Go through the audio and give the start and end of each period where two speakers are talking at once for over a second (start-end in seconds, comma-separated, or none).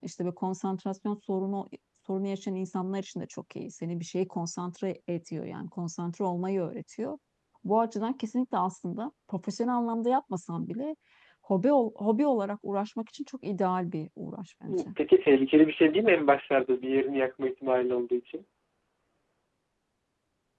none